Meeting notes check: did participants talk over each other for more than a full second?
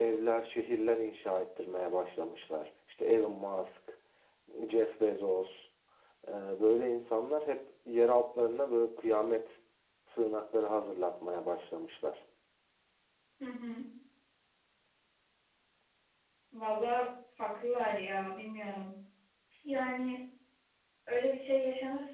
No

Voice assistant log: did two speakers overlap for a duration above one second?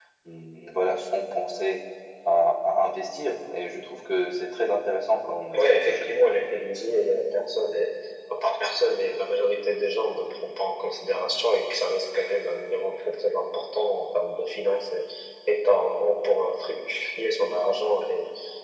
No

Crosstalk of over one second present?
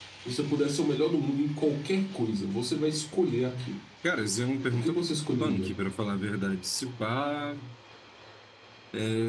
No

